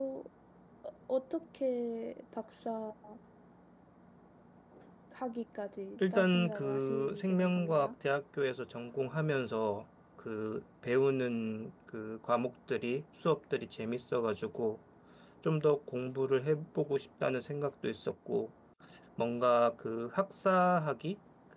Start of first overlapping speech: 6.0 s

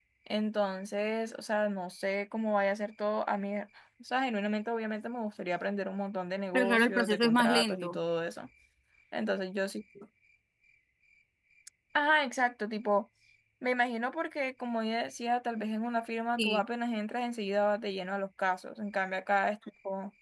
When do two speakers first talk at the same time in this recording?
6.5 s

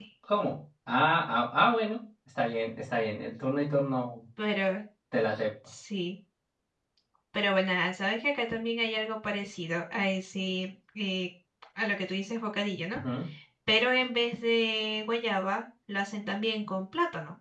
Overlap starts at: none

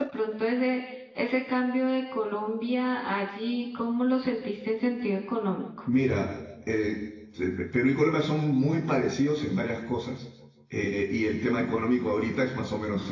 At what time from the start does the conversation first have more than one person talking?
none

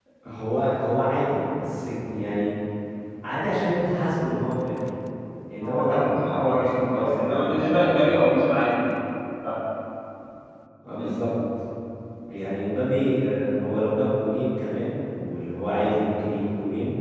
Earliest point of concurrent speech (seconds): 5.6 s

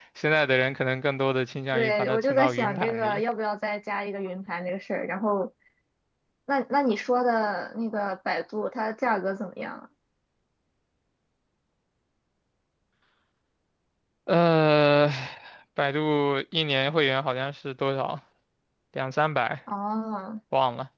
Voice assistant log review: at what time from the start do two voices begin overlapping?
1.7 s

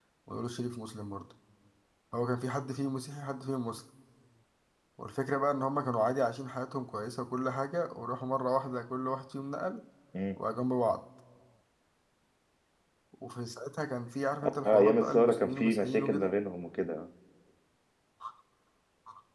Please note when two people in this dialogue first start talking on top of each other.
14.7 s

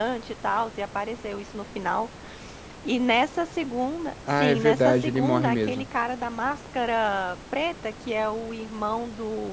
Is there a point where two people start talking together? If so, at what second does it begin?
4.3 s

